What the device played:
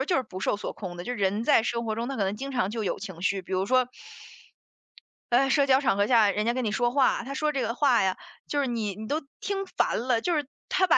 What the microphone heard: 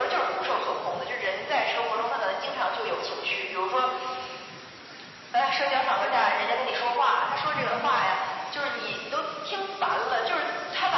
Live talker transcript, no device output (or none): none